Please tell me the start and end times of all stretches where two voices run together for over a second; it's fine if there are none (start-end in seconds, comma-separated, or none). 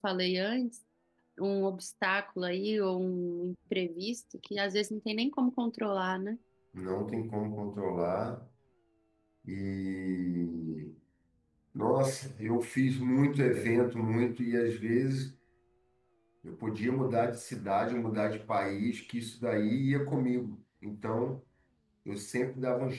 none